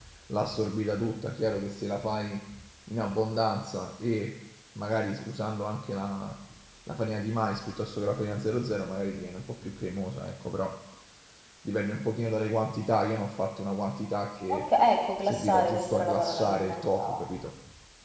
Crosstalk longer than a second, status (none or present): present